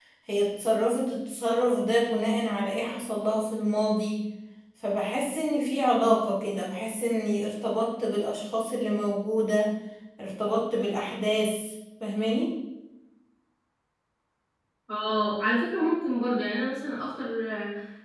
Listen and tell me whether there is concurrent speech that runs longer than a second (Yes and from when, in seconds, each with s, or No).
No